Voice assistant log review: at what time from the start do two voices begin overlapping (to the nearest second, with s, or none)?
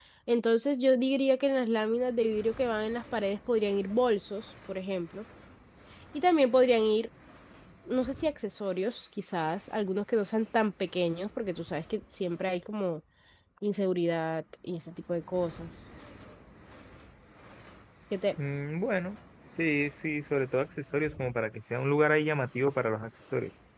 none